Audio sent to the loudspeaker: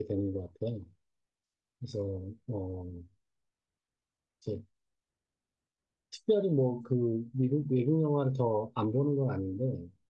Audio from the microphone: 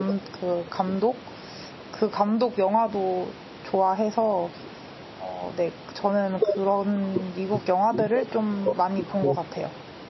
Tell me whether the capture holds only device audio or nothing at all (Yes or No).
No